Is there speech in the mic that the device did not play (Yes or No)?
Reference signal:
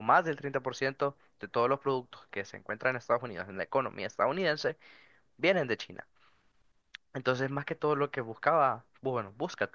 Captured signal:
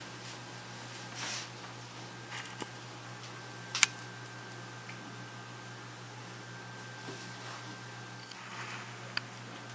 No